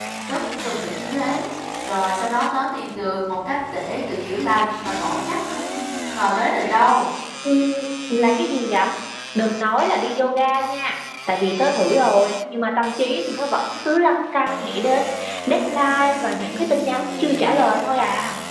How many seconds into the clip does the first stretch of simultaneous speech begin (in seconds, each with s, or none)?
none